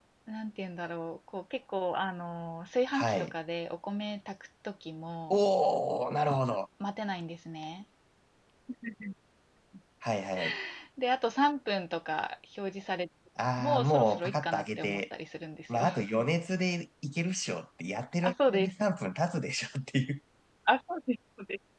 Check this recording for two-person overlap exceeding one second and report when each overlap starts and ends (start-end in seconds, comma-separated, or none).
13.6-15.0